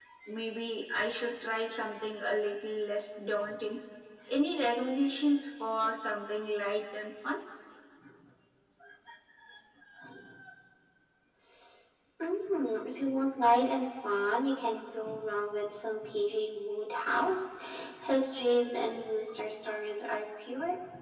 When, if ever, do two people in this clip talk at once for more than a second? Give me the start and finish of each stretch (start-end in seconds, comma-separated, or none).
none